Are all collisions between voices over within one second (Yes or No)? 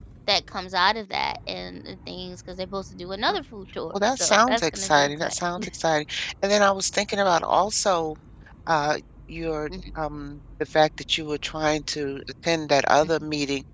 No